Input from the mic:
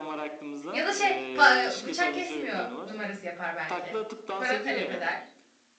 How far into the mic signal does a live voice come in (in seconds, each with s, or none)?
0.7 s